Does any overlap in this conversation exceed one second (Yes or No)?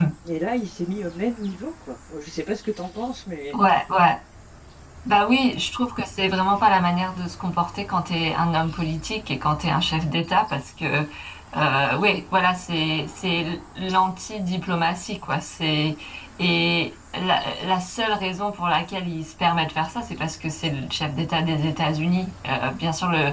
No